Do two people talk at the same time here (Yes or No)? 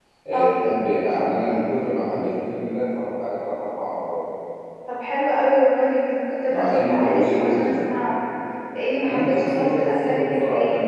Yes